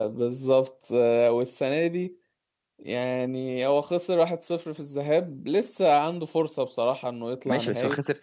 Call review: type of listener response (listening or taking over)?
taking over